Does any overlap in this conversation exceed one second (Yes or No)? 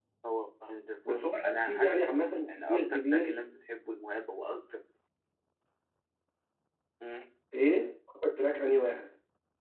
Yes